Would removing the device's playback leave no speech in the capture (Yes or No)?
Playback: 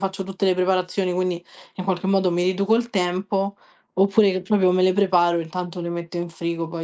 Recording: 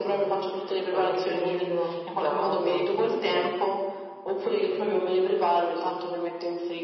No